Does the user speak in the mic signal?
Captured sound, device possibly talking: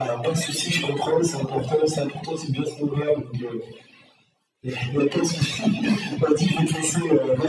No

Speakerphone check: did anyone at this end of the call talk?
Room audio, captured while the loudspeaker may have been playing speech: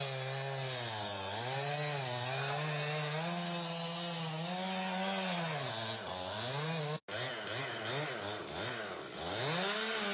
No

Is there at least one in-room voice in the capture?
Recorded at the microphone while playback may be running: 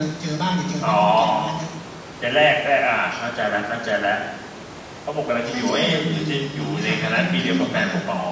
No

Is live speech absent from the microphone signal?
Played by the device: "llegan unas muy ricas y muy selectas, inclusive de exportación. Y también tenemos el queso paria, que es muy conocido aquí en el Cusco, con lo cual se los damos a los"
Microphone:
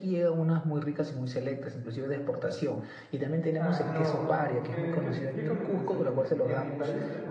No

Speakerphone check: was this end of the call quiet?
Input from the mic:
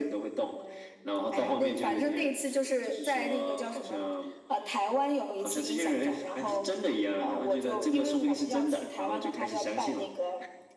Yes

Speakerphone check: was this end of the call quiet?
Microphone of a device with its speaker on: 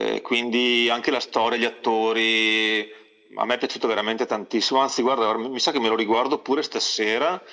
Yes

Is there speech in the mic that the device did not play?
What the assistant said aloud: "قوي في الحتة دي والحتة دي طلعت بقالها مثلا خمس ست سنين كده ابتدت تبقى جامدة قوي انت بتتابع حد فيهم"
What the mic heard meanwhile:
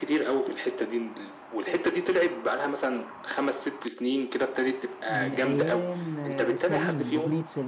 Yes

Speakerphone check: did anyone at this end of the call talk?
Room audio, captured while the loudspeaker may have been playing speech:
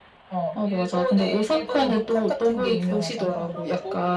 Yes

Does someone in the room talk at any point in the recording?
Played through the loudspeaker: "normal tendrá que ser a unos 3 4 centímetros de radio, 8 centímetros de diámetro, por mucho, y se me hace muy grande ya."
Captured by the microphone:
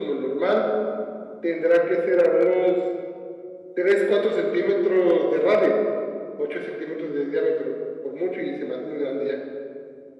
No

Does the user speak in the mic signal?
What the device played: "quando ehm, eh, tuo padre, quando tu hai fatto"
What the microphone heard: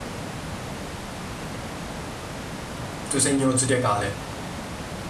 Yes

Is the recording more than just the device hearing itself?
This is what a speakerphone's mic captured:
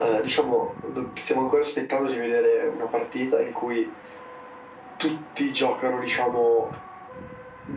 No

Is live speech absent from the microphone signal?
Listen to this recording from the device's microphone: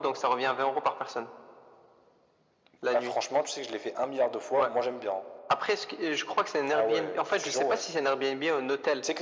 Yes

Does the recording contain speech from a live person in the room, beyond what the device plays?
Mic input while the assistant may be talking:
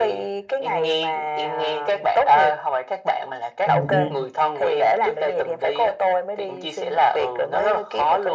Yes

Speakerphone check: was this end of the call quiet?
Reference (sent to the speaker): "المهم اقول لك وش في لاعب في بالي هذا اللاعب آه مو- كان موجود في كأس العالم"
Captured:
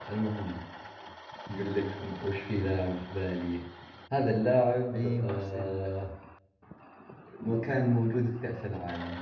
No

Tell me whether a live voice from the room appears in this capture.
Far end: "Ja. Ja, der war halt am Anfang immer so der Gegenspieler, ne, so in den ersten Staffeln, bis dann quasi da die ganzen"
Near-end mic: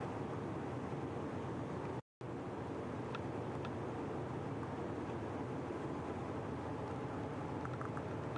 No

